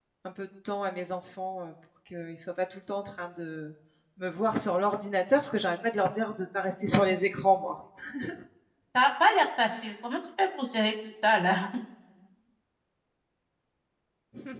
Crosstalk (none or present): none